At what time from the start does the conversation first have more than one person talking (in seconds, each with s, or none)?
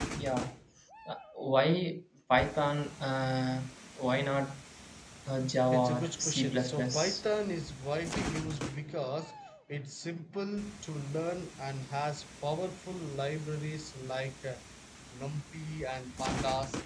5.7 s